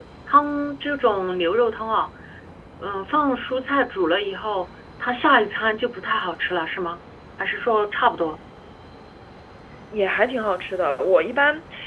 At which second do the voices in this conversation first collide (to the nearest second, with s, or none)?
none